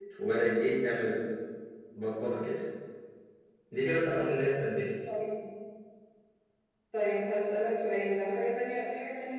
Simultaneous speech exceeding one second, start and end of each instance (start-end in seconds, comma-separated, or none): none